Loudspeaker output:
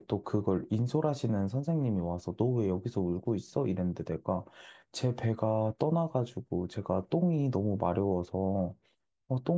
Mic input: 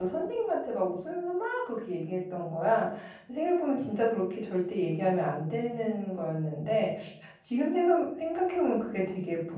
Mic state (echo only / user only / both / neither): user only